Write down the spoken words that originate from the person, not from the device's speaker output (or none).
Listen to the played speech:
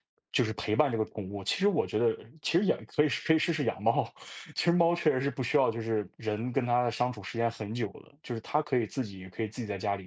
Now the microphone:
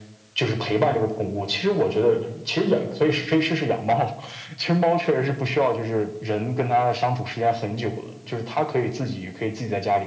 none